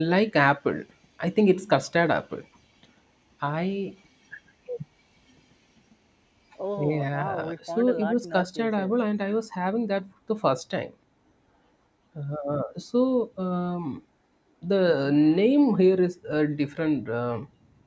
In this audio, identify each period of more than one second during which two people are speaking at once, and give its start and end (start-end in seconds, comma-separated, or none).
6.8-8.9